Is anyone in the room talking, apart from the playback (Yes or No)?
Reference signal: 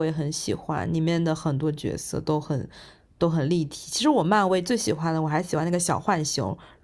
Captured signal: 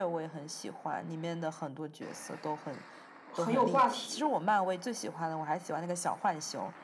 Yes